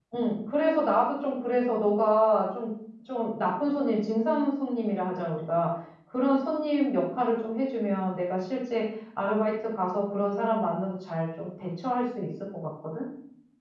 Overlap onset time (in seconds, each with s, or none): none